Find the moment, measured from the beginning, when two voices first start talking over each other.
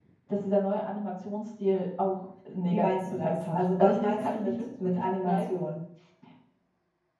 3 s

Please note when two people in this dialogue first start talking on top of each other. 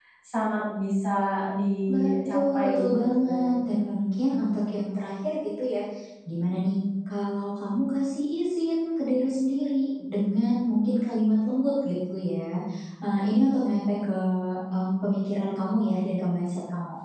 2 s

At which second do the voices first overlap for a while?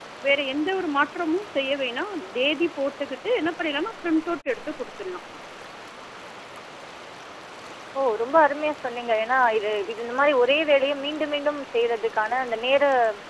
none

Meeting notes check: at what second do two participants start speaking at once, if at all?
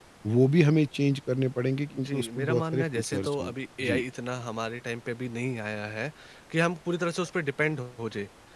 2 s

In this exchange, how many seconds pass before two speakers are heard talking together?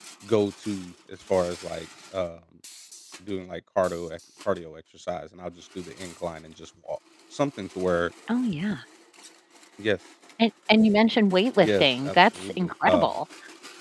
12 s

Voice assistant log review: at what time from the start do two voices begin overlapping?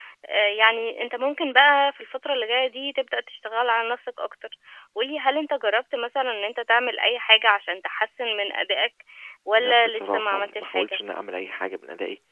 10 s

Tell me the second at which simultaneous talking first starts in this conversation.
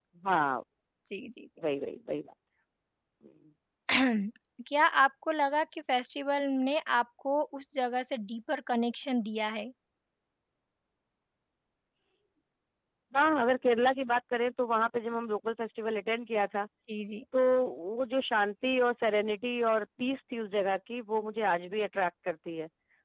none

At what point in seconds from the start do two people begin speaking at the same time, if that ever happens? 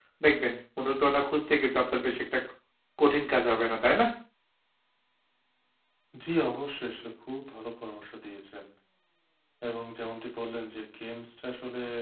none

